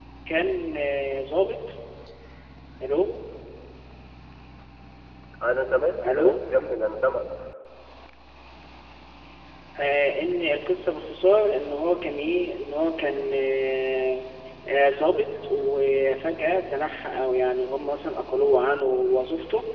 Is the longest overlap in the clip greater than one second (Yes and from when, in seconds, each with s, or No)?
No